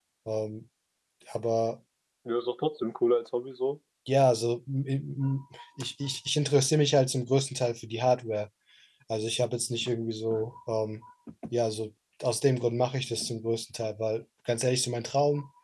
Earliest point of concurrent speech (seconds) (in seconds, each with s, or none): none